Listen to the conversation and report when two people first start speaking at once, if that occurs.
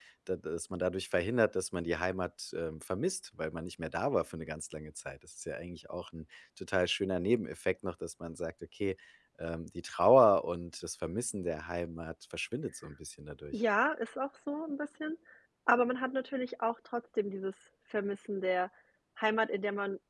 none

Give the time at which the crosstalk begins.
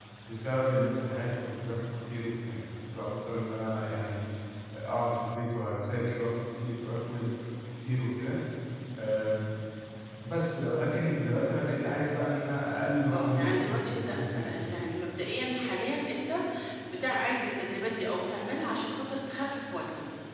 13.1 s

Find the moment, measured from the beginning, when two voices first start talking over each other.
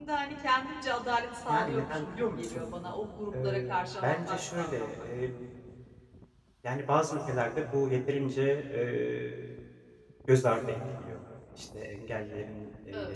1.5 s

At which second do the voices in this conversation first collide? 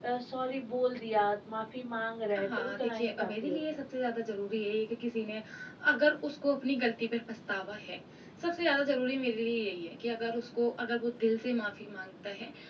2.4 s

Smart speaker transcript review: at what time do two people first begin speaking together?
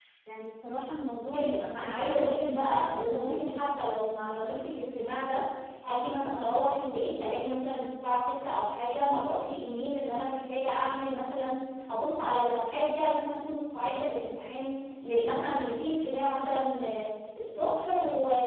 1.2 s

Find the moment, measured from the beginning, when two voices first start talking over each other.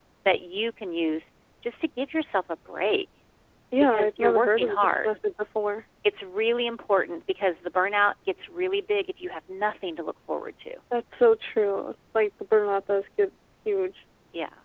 3.8 s

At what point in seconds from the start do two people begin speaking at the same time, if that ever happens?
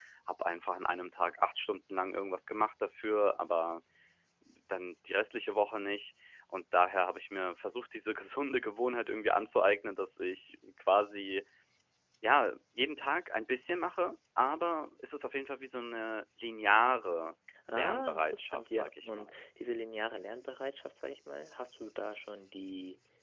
17.7 s

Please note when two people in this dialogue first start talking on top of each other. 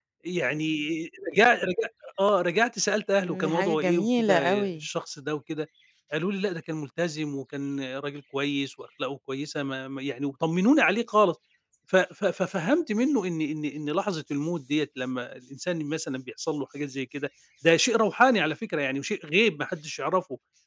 3.2 s

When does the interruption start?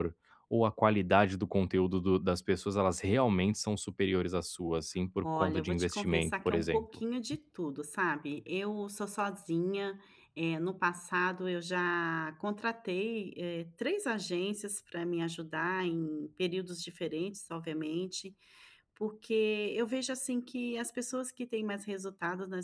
5.2 s

